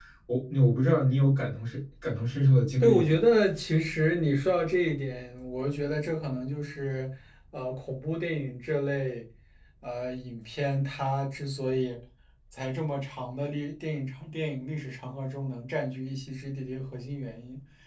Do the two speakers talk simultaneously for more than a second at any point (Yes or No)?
No